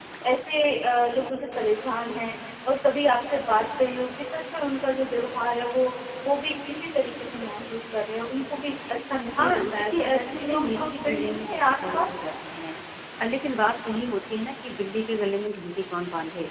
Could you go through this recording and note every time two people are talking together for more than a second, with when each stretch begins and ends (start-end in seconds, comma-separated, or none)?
9.4-12.1